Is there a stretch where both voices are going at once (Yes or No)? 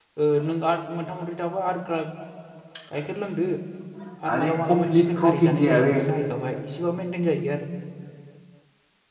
Yes